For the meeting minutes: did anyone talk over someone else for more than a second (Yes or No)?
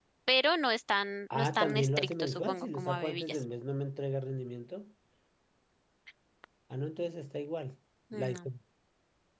Yes